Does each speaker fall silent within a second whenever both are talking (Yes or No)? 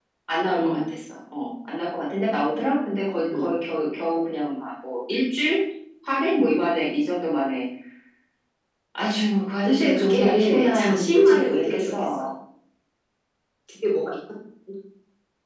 No